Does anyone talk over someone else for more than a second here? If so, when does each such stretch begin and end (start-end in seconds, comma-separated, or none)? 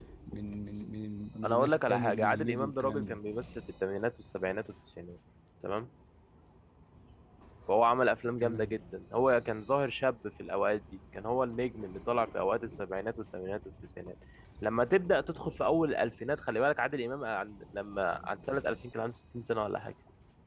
1.4-3.2